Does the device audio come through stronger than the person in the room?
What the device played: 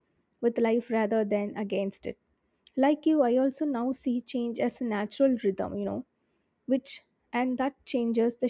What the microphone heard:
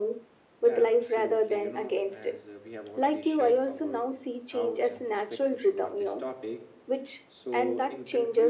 Yes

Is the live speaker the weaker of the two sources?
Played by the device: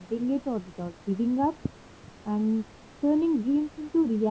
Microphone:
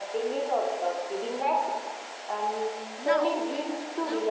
Yes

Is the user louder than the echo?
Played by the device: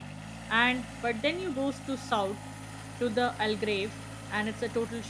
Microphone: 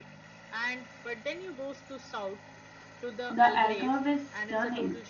Yes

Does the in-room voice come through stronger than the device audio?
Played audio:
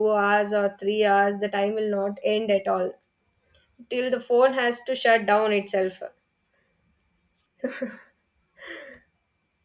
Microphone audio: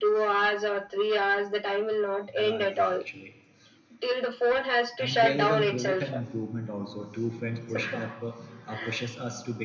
No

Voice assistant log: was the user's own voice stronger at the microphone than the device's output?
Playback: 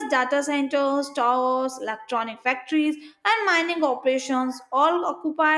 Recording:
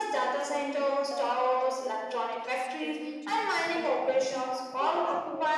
No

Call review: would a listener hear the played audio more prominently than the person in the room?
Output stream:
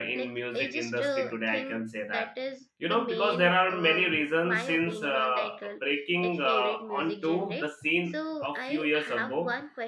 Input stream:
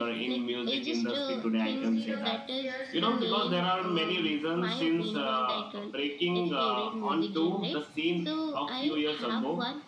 Yes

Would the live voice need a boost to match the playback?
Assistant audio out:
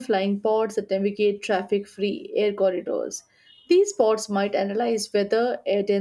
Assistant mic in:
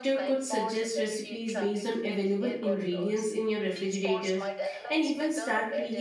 No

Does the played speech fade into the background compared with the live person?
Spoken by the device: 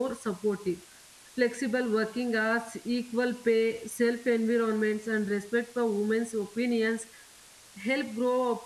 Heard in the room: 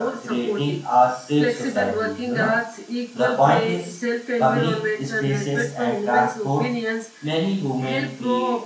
Yes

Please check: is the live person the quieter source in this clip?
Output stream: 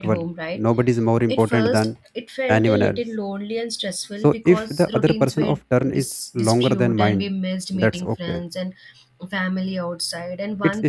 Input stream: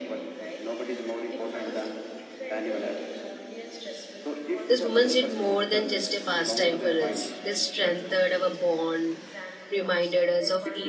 No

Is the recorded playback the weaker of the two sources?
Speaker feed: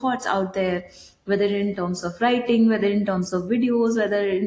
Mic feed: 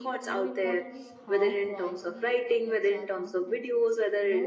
No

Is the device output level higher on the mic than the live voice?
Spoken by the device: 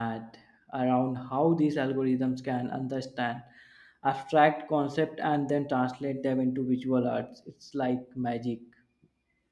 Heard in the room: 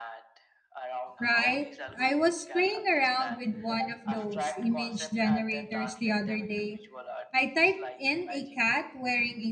No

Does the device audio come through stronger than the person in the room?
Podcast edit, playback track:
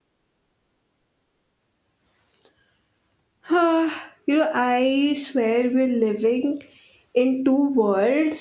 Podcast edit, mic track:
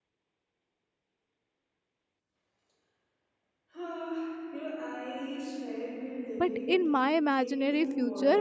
No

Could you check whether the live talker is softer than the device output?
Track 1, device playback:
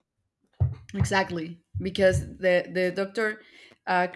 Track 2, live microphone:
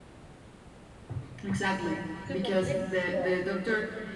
Yes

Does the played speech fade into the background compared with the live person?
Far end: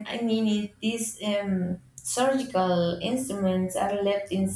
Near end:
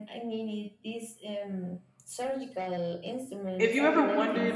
Yes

